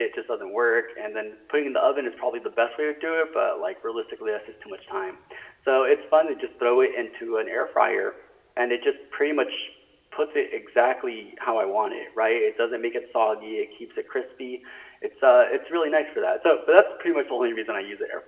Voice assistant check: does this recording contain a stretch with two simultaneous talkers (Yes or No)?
No